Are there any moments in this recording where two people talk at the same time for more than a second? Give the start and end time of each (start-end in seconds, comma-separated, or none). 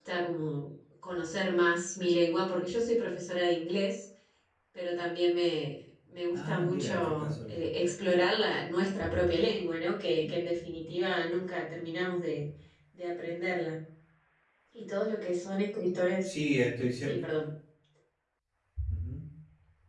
6.3-7.6